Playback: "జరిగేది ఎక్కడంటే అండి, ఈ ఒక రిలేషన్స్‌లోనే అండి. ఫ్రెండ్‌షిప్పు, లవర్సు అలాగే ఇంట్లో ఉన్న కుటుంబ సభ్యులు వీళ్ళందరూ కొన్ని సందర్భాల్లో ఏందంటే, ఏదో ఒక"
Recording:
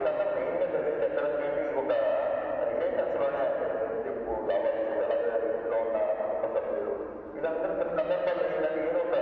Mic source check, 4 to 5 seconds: echo only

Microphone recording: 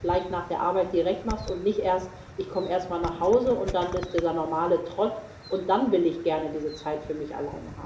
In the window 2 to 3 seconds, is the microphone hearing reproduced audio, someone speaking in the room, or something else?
user only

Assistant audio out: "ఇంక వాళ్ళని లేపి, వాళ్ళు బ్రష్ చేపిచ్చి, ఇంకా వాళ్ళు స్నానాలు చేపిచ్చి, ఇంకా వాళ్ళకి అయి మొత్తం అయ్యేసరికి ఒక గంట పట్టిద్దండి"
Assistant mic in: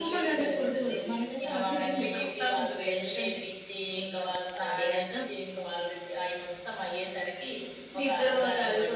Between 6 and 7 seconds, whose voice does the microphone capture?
echo only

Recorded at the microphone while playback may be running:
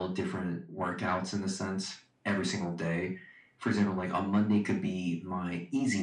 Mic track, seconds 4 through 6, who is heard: echo only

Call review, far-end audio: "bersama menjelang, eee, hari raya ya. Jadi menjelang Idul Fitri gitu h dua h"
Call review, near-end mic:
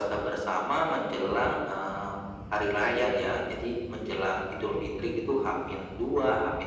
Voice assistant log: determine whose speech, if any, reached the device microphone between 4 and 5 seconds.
echo only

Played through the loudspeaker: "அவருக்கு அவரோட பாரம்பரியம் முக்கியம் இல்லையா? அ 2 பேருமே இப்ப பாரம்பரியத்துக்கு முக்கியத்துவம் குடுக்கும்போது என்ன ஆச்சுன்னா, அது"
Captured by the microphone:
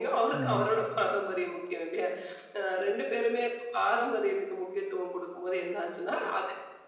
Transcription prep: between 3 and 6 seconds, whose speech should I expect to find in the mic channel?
echo only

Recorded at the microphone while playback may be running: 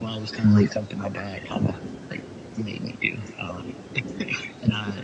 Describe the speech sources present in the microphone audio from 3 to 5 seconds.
echo only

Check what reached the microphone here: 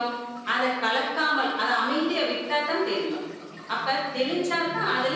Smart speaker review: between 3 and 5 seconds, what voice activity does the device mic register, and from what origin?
echo only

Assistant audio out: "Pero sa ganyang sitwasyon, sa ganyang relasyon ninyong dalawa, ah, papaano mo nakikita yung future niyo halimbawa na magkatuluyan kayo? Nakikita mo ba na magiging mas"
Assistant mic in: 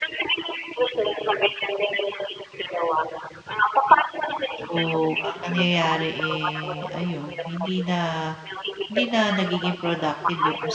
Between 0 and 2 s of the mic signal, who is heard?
echo only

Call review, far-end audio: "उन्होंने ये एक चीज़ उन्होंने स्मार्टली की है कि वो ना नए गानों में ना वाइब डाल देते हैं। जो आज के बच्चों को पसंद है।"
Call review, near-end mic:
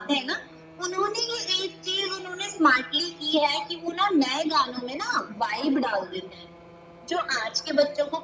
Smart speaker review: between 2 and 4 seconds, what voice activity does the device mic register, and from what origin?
echo only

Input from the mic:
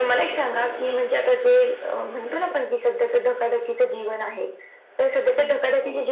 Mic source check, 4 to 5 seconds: echo only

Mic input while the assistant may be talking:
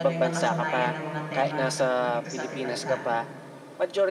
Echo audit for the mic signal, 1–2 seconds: both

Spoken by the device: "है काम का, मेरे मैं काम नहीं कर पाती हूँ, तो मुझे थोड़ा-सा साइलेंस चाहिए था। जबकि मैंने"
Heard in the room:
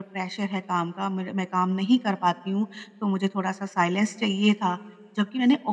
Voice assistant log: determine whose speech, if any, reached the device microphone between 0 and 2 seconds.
echo only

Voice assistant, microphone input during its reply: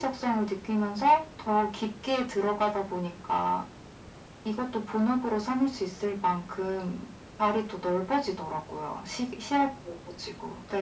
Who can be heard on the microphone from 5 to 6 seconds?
echo only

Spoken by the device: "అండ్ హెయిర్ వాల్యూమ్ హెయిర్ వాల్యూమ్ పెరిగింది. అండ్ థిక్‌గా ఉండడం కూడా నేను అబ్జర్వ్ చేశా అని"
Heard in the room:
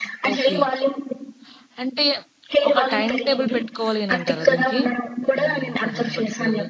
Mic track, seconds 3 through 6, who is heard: both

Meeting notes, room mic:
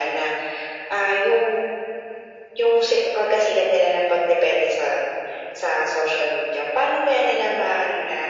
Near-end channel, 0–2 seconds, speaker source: echo only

